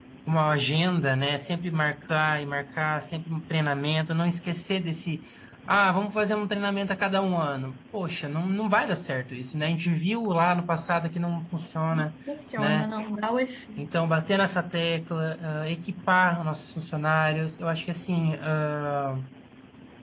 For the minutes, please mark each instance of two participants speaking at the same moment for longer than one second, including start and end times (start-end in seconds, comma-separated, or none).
none